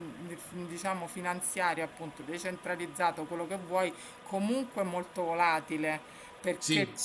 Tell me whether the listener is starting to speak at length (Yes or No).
No